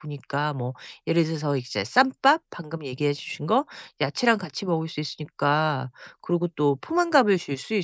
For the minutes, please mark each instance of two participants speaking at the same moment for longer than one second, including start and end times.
none

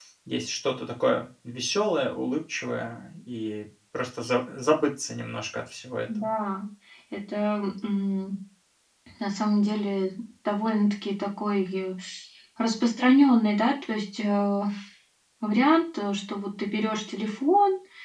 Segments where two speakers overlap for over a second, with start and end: none

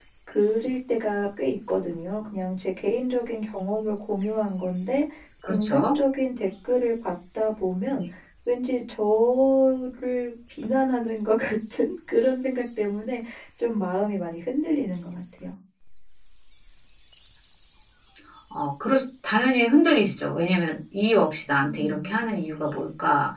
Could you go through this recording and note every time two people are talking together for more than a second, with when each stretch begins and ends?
none

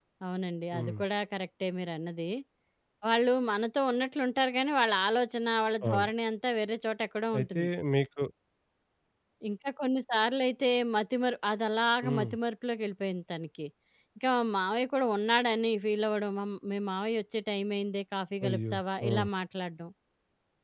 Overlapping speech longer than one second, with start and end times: none

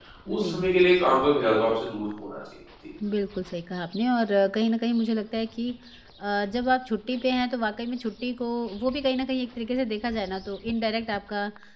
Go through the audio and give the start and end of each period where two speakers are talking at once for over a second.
none

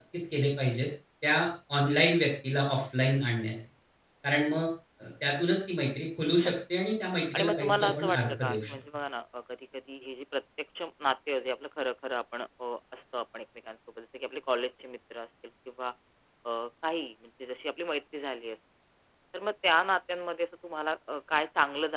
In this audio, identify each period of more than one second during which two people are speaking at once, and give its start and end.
7.3-8.7

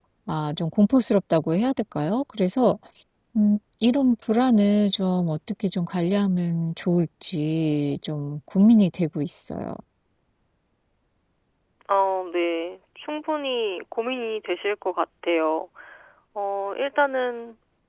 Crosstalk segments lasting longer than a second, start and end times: none

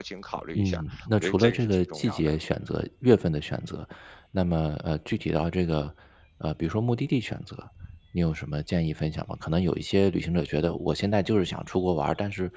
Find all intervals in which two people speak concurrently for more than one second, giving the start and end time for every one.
0.6-2.3

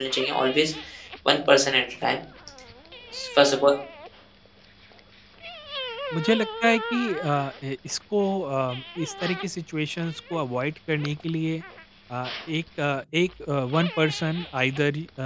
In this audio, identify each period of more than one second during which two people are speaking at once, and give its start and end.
none

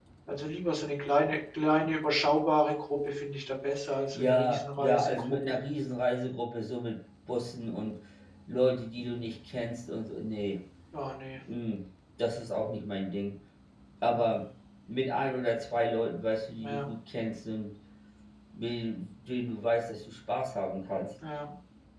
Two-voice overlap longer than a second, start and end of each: 4.1-5.6

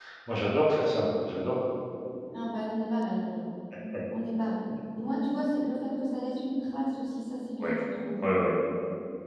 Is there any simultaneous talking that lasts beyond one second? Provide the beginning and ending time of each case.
none

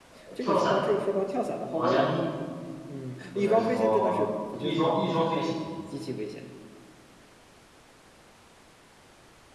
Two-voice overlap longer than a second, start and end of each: 3.3-5.6

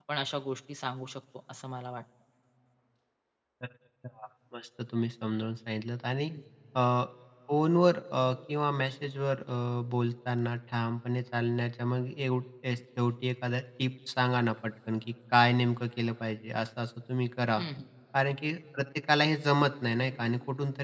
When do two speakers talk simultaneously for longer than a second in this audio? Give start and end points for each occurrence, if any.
none

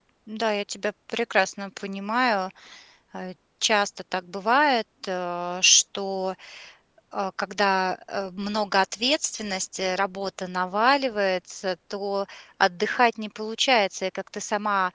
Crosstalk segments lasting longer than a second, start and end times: none

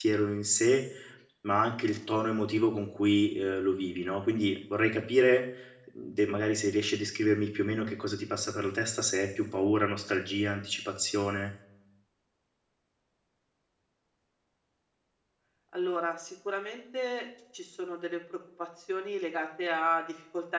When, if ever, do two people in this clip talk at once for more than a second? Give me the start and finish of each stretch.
none

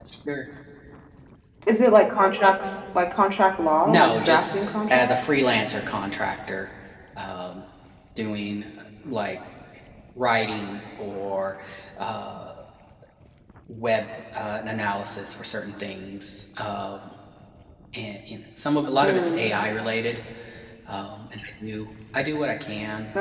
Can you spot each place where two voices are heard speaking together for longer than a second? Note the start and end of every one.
3.8-5.2

